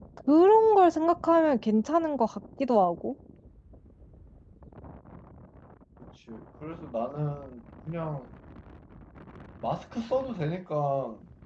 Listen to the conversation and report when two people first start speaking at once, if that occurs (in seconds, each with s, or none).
none